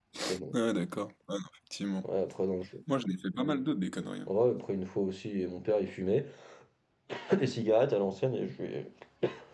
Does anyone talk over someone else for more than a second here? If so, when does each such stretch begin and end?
none

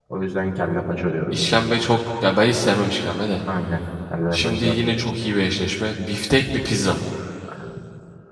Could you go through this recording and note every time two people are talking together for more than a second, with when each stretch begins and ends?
none

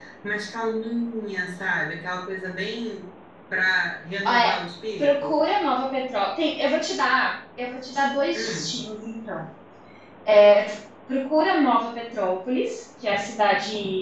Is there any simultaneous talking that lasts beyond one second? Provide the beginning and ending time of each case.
none

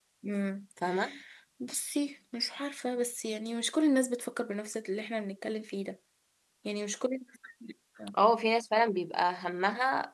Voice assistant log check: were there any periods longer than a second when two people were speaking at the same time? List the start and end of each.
none

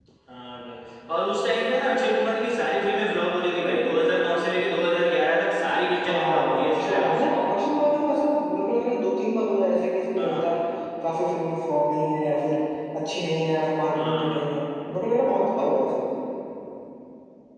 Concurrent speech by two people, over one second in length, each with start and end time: 6.0-7.5

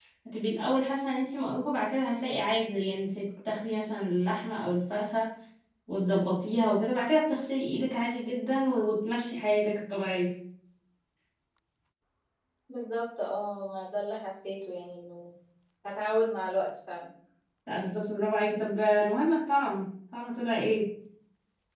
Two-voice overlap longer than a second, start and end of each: none

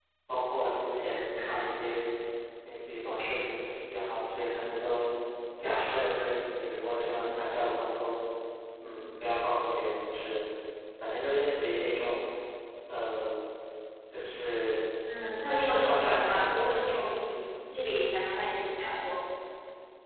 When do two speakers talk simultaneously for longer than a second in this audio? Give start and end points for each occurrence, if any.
15.4-16.8

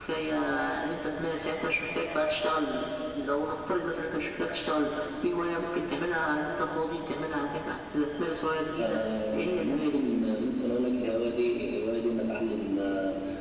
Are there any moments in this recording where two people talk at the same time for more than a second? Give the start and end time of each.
8.8-10.0

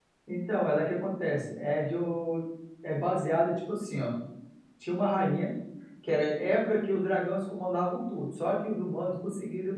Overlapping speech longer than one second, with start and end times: none

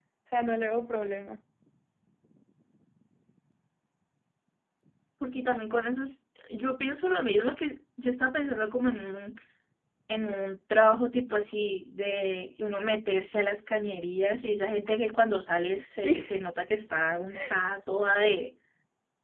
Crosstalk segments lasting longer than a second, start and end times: none

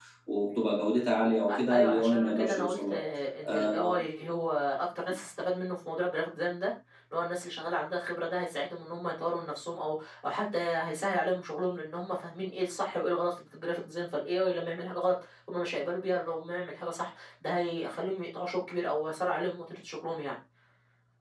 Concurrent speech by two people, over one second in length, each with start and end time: 1.5-3.0

